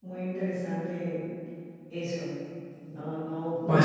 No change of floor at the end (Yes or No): Yes